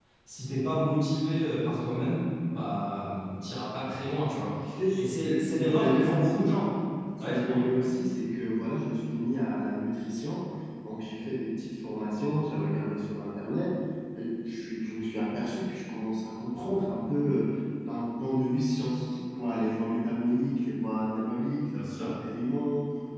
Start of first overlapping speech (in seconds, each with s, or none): 5.0 s